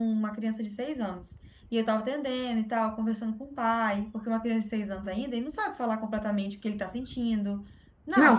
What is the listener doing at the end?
taking over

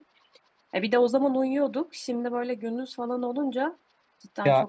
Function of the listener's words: taking over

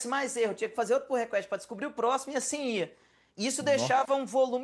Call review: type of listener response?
listening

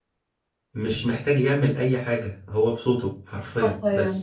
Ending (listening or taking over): taking over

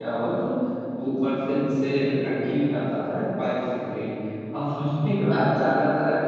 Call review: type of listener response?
listening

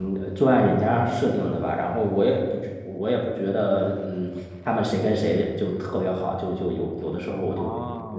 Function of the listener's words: taking over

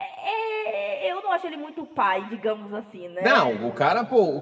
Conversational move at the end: taking over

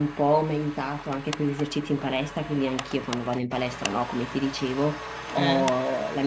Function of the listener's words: listening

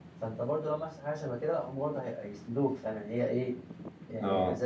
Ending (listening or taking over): taking over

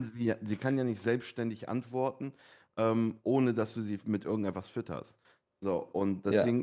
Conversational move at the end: listening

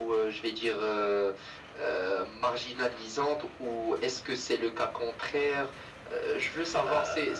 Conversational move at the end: taking over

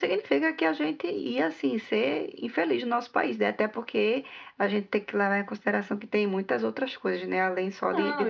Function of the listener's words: taking over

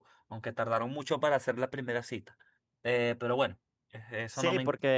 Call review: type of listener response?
taking over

